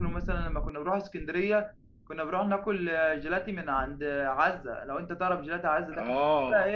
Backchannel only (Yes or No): No